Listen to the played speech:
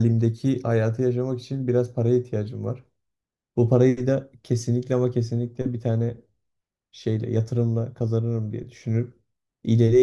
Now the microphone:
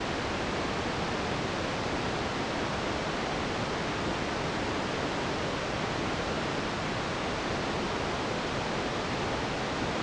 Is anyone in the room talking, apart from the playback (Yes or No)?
No